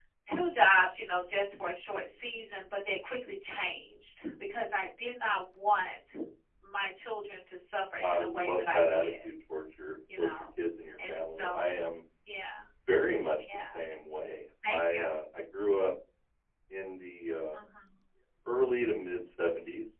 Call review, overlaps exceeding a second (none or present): present